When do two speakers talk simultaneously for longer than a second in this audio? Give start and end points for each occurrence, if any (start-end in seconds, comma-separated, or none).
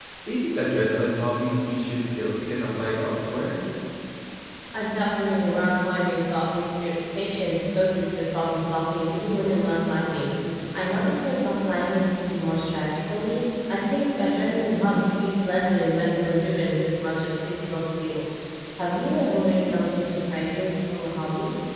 none